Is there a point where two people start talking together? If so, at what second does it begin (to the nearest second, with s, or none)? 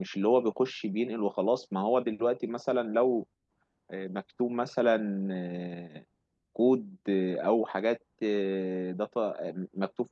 none